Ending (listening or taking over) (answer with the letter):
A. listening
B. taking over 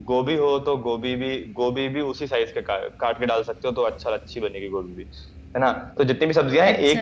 A